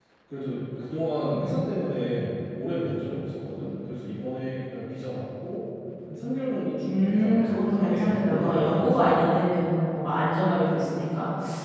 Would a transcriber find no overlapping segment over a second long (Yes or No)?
No